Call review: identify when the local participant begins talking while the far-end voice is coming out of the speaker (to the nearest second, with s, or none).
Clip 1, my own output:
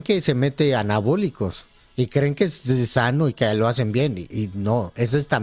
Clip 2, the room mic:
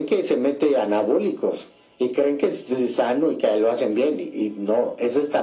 none